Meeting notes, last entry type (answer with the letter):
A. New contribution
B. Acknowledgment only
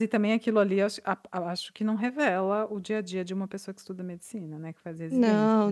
A